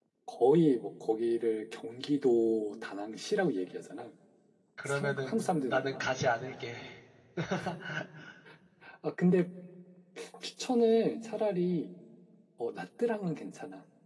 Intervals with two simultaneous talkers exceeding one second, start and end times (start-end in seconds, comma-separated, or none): 4.9-6.1